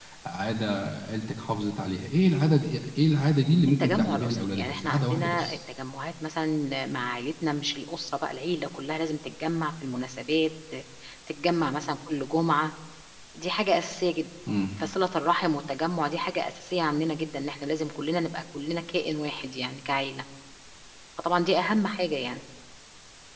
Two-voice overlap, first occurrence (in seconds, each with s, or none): 3.8 s